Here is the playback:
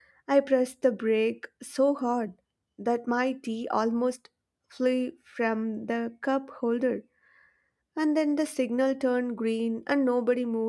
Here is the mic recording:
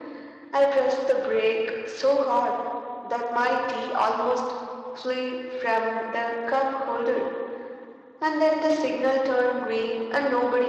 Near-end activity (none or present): none